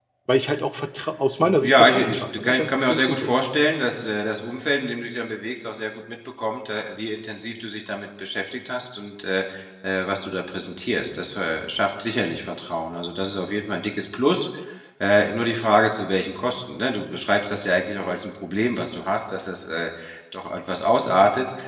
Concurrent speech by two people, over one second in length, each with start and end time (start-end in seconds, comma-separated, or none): 1.6-3.3